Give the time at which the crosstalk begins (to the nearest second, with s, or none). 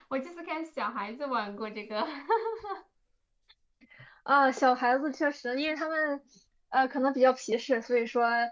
none